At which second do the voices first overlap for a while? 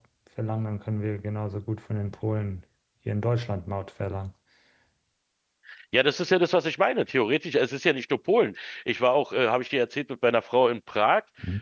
none

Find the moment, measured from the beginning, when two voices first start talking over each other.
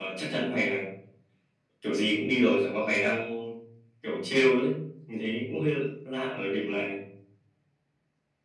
none

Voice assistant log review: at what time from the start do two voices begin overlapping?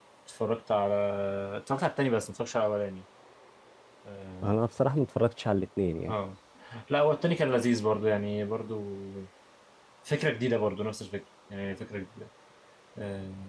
none

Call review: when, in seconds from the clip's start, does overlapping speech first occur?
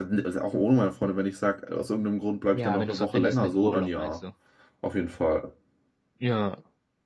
2.5 s

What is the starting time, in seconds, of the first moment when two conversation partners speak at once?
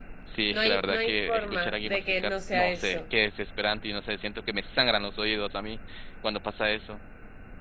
0.5 s

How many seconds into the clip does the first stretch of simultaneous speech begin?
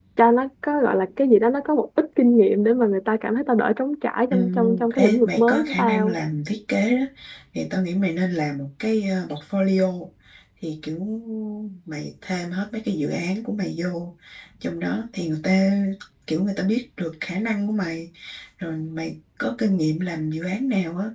4.3 s

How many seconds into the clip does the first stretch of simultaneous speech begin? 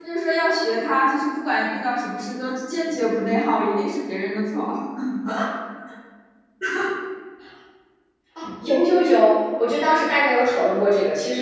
none

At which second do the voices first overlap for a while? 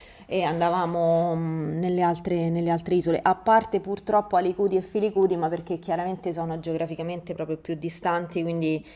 none

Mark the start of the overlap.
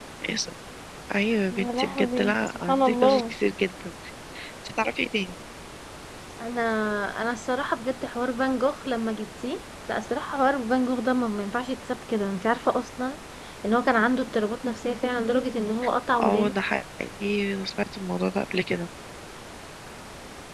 1.5 s

